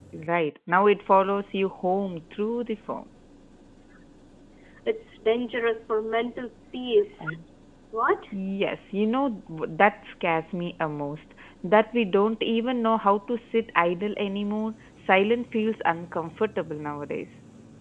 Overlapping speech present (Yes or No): No